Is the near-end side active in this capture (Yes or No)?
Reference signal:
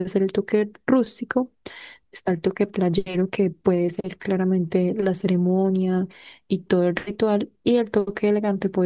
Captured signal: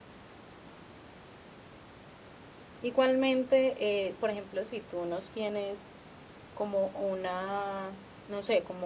Yes